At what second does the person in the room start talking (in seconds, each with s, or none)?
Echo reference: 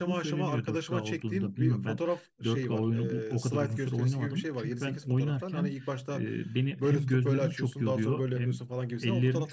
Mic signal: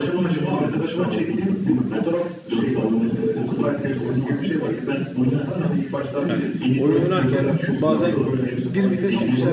6.3 s